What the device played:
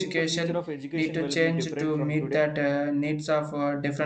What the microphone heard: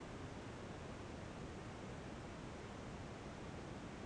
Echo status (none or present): none